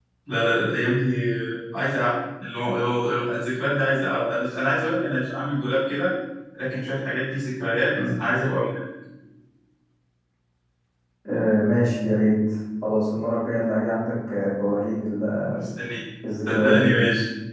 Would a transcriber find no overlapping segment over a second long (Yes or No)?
Yes